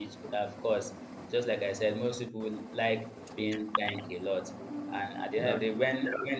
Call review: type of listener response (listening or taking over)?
listening